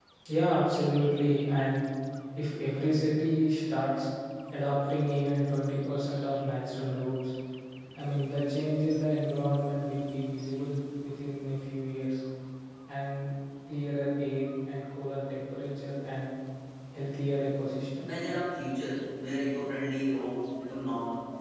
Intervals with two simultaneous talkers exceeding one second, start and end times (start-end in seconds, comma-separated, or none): none